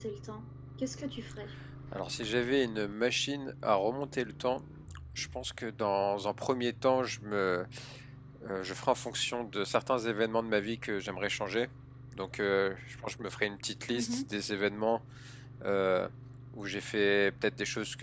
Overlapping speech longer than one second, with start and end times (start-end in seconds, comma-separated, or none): none